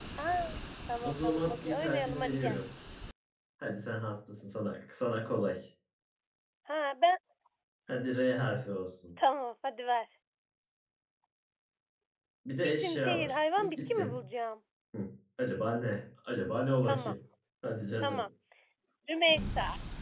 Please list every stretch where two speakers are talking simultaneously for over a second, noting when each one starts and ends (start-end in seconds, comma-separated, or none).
1.0-2.5, 12.6-14.2